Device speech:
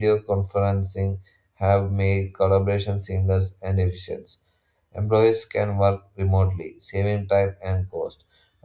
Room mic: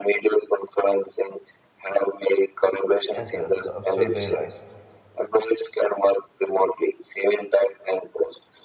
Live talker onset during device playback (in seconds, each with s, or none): 3.0 s